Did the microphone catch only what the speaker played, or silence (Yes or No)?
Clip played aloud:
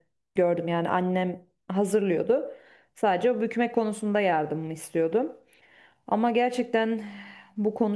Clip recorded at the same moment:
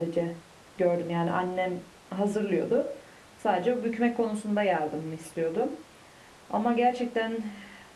Yes